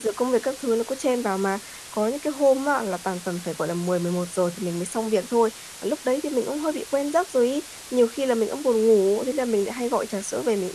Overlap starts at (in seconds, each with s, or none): none